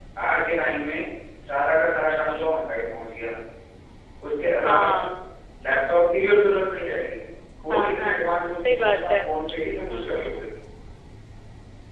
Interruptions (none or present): present